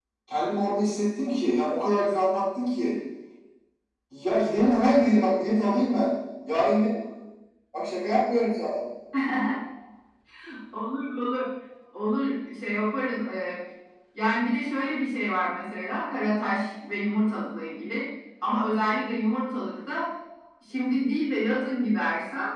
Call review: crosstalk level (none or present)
none